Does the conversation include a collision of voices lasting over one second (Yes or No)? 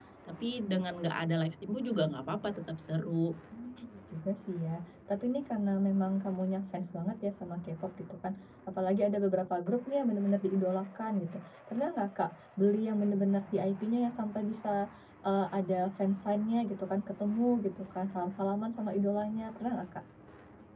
No